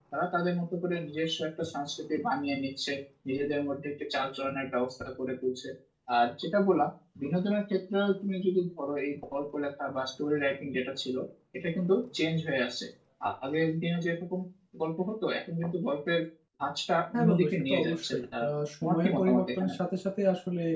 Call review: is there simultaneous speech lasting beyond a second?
Yes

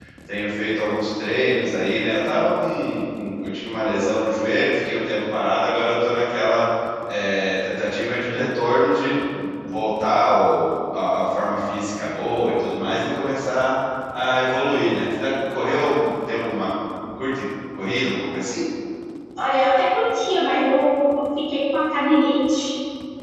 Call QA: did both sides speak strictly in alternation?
Yes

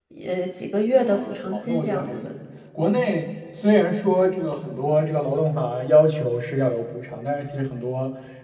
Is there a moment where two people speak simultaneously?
Yes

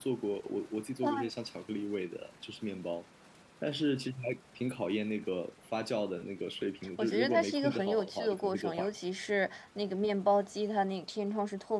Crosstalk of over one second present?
Yes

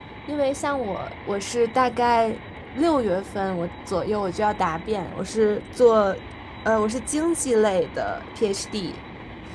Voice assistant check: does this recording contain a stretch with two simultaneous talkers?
No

